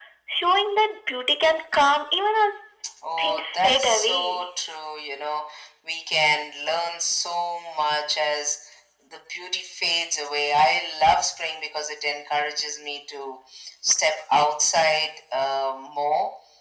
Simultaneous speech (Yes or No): Yes